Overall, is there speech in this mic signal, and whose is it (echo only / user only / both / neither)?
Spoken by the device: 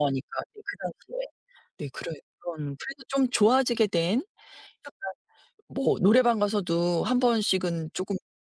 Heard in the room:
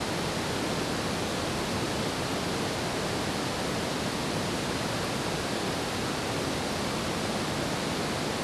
neither